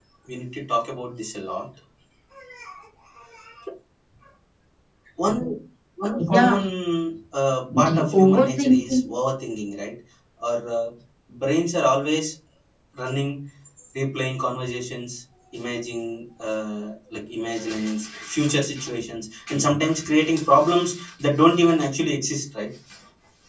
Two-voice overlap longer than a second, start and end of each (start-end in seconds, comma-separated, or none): 7.8-9.0